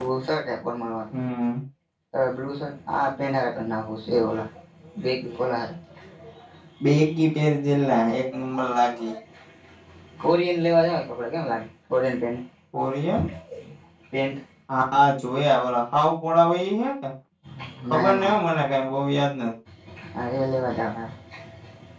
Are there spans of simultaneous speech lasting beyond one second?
No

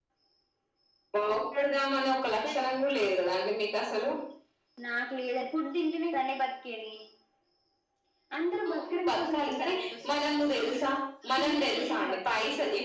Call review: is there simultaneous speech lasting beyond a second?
Yes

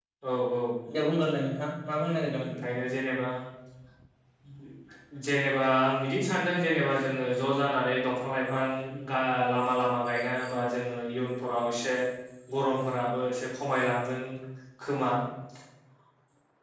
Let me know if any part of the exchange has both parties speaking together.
No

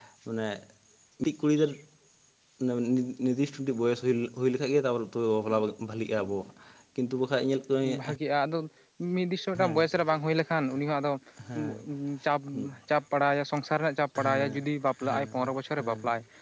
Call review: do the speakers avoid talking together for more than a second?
Yes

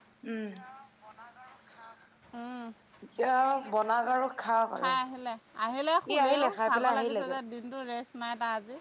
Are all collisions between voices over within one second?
No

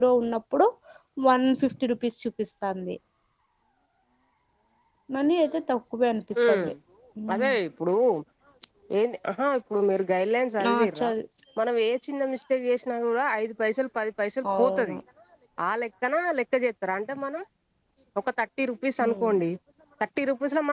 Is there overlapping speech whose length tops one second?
No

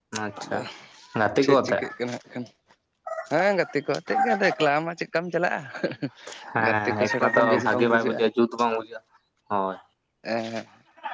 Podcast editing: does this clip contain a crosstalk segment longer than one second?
Yes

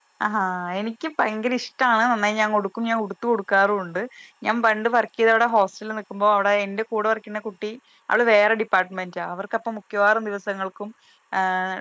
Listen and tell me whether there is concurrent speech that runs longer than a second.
No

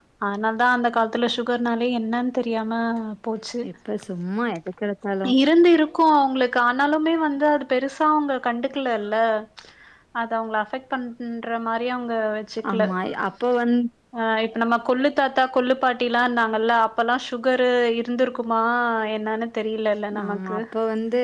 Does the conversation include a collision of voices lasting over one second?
No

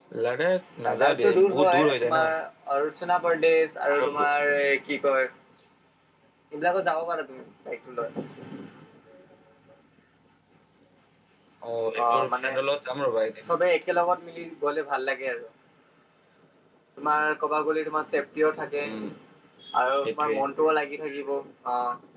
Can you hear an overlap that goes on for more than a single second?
Yes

